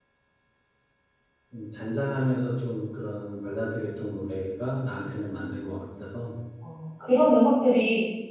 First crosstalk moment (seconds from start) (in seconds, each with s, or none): none